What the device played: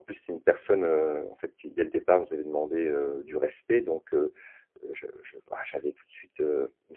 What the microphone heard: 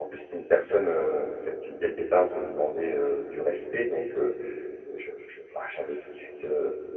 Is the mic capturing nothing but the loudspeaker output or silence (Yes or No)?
Yes